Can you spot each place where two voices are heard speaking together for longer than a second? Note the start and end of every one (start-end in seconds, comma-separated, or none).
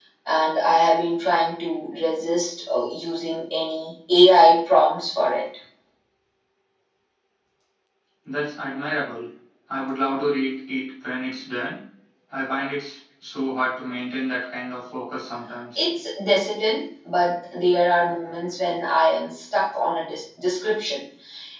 none